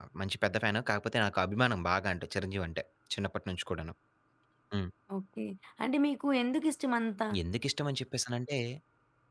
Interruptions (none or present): none